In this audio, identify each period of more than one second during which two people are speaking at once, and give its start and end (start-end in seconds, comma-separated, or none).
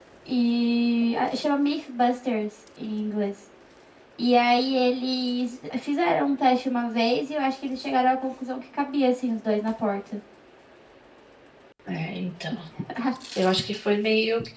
none